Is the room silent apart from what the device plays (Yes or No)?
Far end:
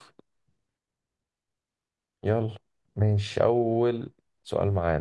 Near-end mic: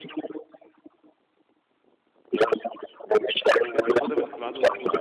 No